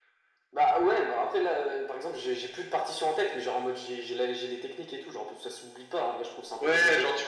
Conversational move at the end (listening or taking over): taking over